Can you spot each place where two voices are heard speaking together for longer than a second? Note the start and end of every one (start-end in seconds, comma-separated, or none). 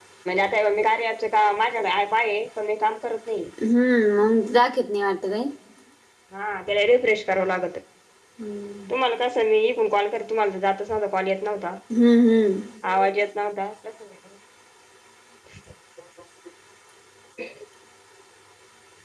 none